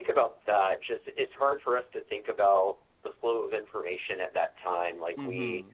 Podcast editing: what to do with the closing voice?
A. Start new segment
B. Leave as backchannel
B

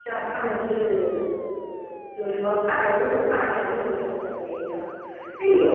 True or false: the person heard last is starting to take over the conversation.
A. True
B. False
B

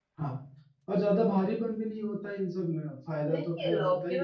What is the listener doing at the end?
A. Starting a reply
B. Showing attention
A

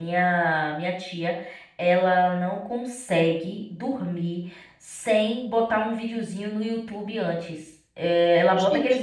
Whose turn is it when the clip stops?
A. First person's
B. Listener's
A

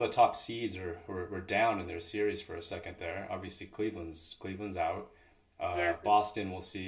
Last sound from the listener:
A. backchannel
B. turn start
A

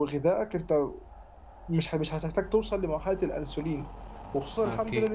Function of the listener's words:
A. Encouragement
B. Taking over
A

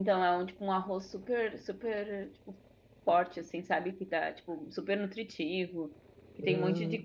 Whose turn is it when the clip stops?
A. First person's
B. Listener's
A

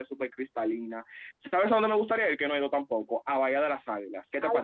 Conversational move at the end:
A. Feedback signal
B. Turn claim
B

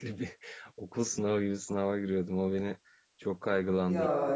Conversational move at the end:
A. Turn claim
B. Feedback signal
B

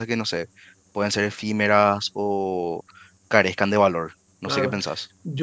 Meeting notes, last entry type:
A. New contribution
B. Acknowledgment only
A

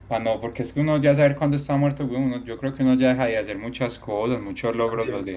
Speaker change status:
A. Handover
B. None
A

